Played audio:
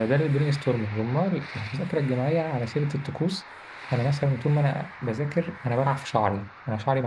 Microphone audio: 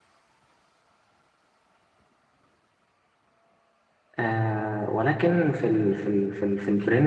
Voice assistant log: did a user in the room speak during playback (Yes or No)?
Yes